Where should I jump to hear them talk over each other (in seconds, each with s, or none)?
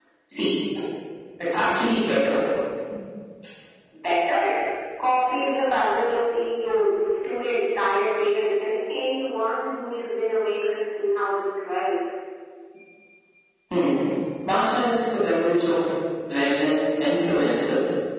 none